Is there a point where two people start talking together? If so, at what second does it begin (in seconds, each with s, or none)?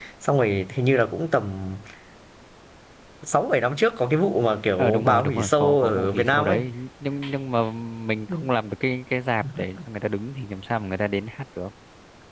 4.8 s